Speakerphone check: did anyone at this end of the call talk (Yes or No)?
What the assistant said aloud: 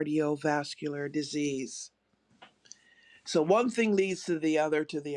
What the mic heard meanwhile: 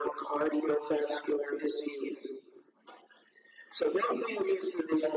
No